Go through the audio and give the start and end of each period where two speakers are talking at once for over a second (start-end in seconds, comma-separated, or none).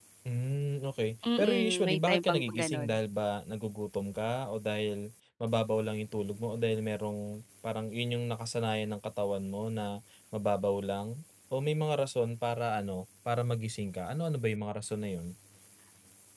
1.4-3.0